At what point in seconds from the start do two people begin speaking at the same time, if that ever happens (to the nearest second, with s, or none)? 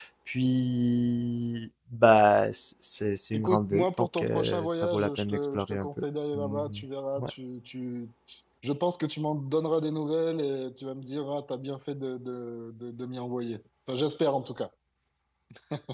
3 s